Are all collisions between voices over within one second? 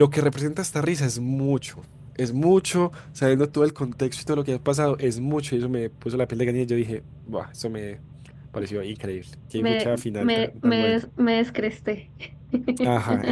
No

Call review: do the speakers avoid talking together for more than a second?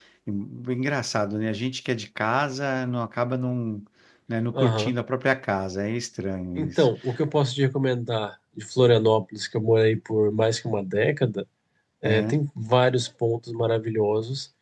Yes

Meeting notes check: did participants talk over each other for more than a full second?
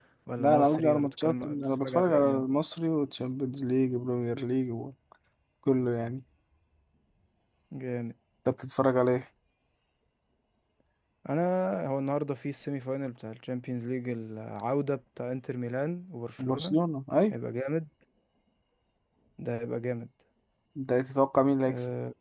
Yes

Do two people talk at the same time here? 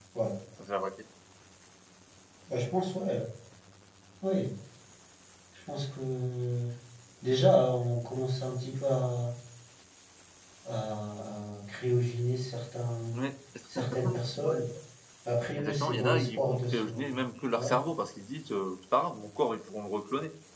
Yes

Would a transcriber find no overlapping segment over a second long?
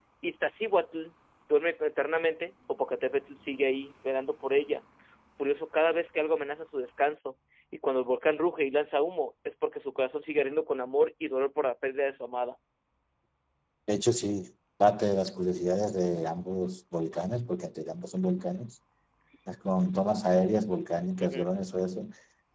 Yes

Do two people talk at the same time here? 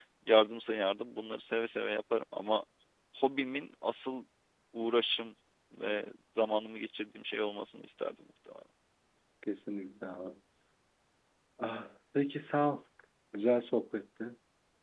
No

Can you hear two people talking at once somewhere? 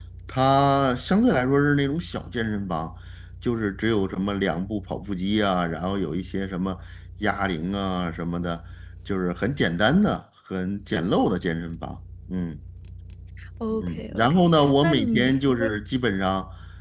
Yes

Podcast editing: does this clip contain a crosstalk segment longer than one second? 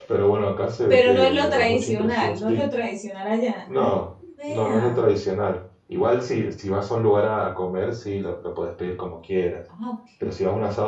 Yes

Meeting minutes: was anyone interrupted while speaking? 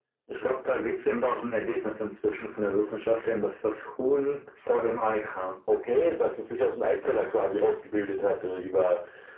No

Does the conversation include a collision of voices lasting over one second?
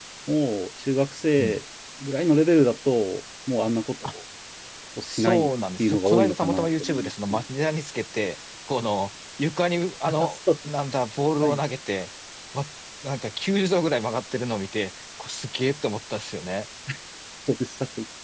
Yes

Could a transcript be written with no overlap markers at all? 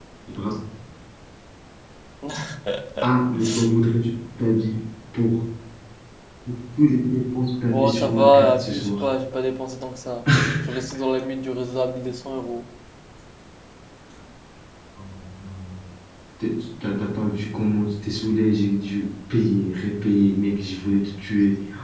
No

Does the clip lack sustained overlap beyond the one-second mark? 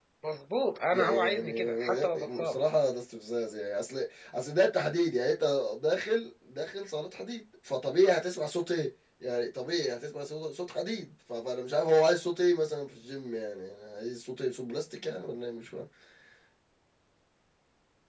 No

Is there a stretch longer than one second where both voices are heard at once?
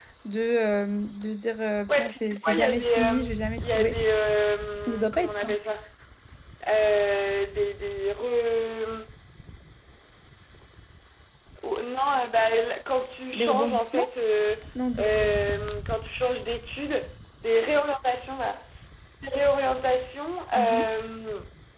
Yes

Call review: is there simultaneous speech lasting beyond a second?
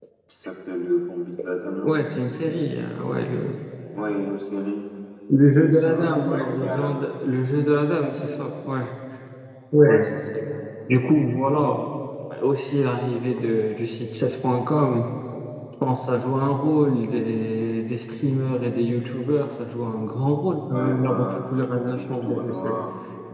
Yes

